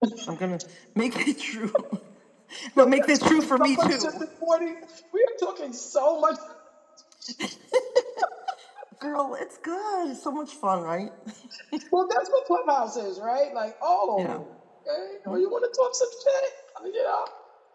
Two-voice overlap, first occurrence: 3 s

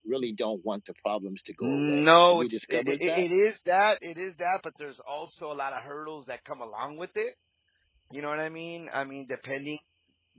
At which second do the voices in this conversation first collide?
2 s

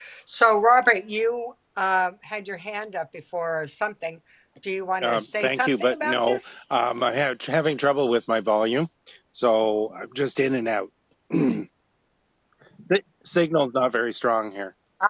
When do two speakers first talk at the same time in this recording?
5 s

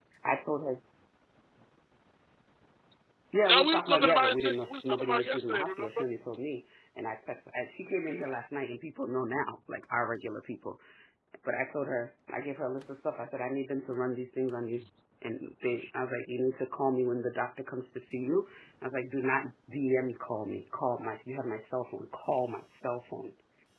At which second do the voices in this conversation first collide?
3 s

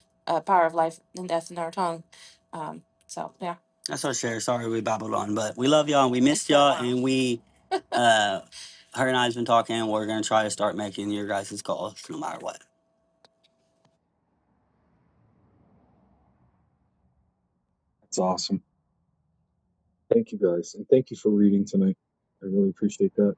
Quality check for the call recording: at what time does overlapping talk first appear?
none

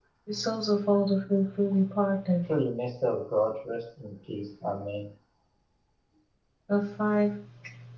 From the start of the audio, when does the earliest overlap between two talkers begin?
none

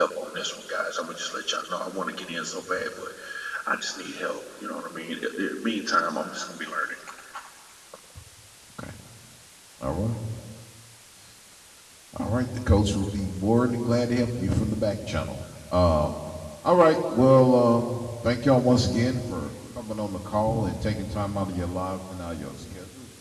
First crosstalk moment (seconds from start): none

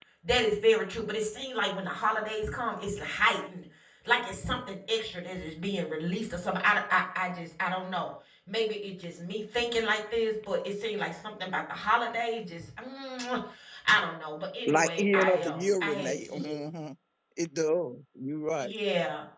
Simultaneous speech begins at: 15 s

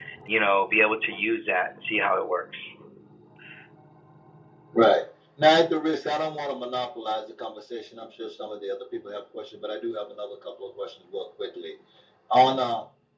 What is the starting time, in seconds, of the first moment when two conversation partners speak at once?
none

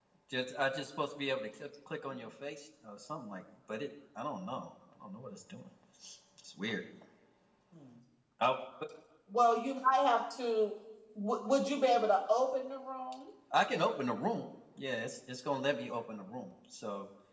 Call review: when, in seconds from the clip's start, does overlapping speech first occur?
none

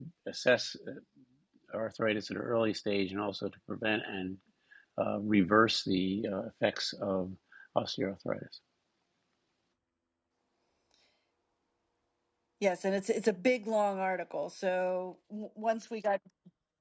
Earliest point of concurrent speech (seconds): none

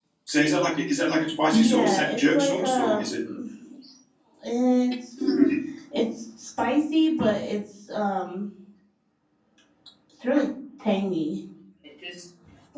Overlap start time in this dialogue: 2 s

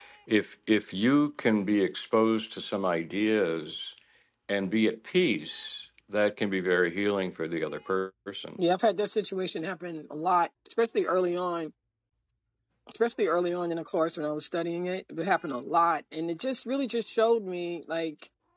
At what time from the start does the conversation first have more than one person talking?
none

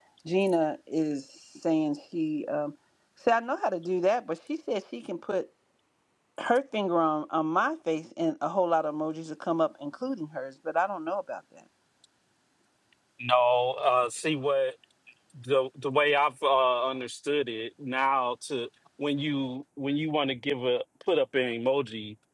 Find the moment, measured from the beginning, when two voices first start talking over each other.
none

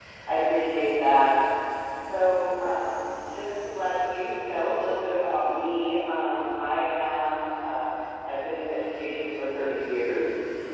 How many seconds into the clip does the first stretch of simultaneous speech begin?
none

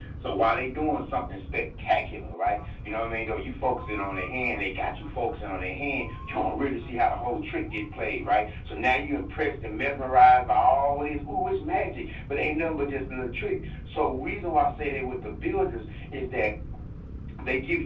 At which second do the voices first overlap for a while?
none

